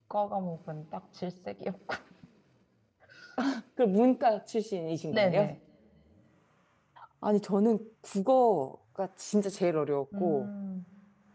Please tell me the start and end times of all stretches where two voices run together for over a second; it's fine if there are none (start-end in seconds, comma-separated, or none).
none